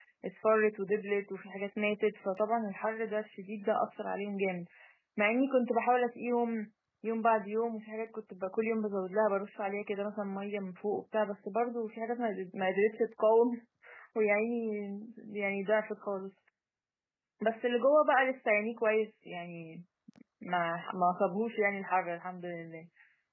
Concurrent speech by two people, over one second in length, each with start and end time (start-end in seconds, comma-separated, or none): none